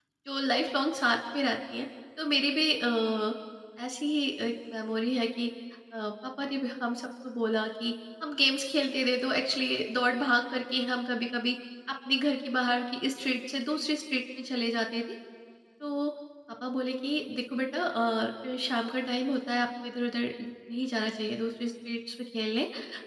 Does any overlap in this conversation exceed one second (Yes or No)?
No